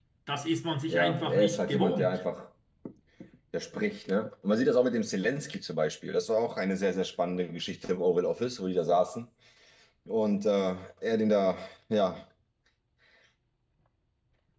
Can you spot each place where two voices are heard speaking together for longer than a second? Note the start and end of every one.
0.9-2.2

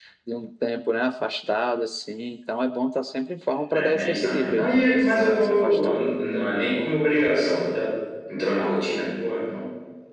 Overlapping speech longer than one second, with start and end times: 3.7-5.8

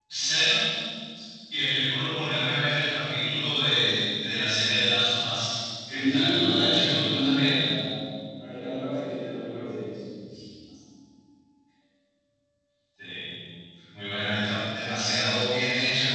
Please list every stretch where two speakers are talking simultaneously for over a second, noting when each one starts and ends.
5.9-7.6

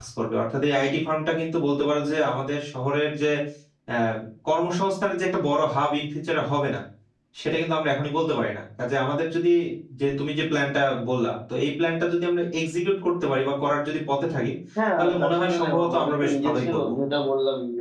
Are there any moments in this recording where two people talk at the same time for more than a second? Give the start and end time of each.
15.0-16.9

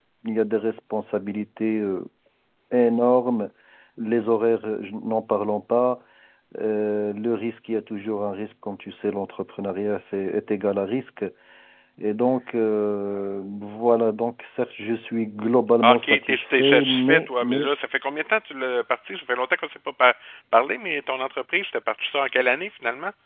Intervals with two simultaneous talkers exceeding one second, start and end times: 15.8-17.7

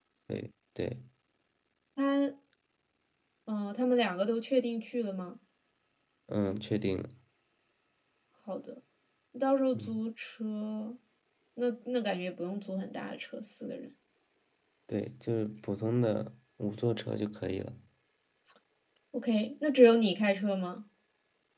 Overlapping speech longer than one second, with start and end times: none

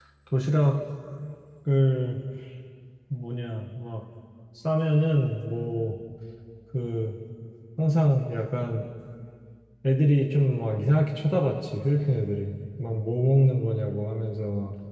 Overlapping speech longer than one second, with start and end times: none

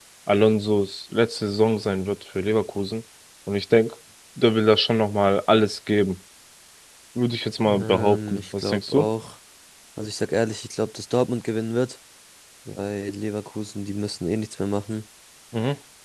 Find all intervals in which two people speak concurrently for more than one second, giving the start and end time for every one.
7.6-9.1

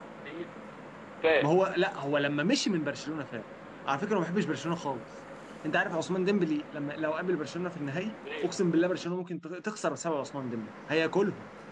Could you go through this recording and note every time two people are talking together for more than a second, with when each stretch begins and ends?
none

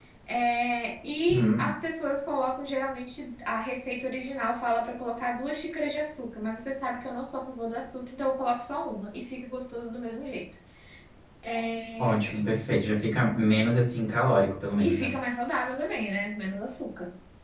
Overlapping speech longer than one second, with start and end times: none

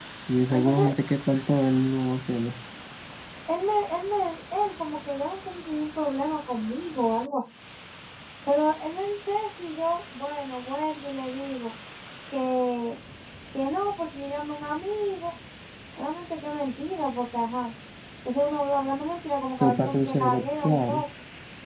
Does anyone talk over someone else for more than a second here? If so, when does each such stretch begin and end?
19.6-21.0

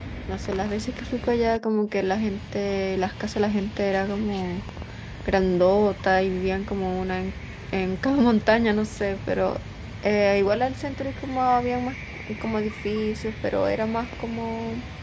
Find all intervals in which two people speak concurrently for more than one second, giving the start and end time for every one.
none

